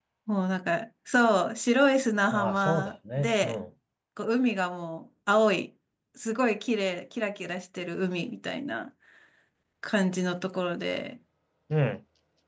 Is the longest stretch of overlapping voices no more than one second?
No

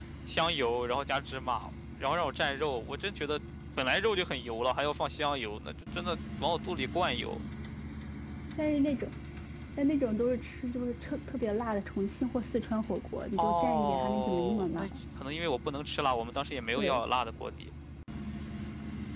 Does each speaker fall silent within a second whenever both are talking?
No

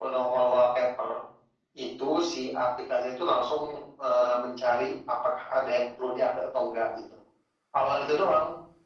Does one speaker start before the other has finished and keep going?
No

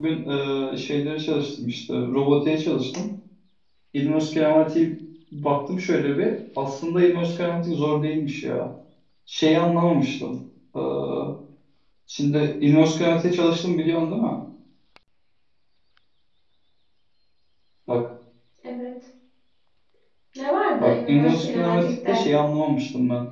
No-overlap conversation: No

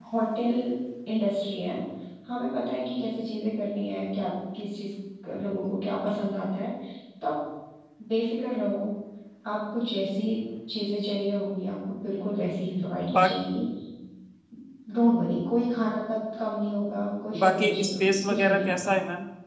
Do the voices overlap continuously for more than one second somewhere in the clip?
Yes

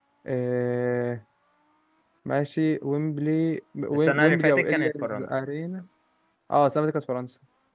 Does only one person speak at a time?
No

